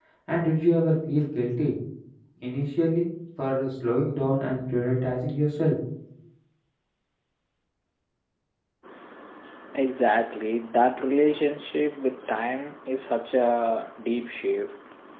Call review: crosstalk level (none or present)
none